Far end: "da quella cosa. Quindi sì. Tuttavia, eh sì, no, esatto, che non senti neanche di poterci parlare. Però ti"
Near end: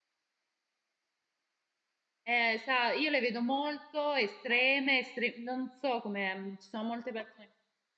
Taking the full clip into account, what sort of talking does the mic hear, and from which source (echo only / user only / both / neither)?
user only